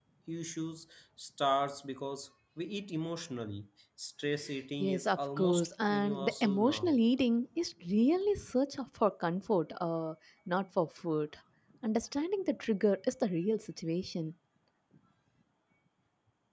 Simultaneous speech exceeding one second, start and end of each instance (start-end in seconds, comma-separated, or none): 4.8-7.0